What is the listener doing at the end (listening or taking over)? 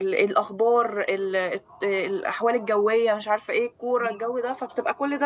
listening